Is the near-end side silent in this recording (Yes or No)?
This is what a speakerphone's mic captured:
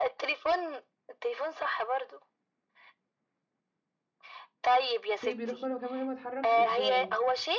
No